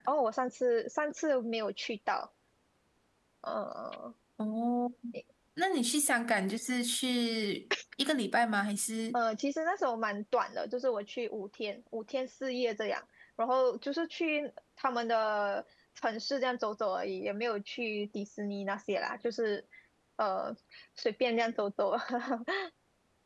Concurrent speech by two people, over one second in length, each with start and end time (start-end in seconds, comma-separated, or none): none